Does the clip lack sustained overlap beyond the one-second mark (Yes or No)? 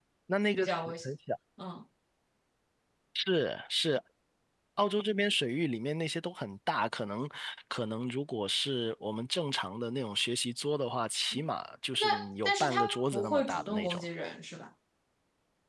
No